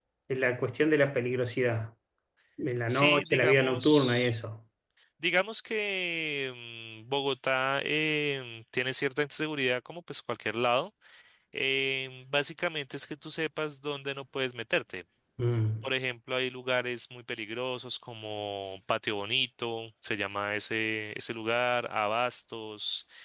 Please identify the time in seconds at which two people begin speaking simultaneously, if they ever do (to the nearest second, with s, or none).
3 s